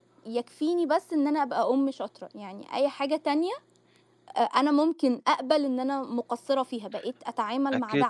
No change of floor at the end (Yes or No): No